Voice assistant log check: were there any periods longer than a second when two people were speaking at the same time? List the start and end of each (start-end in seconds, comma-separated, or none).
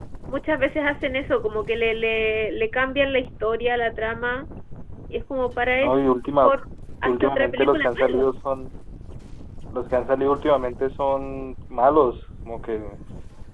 7.0-8.2